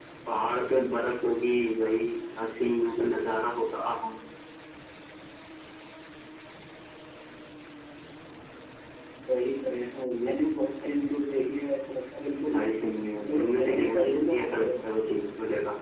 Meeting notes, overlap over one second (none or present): present